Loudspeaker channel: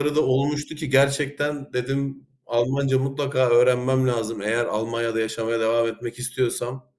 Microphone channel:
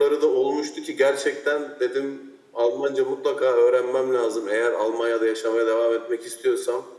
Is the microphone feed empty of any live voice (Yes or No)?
Yes